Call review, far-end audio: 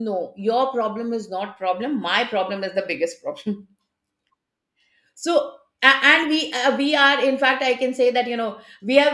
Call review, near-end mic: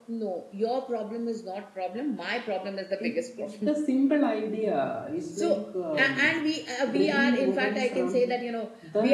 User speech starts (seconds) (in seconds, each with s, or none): 3.0 s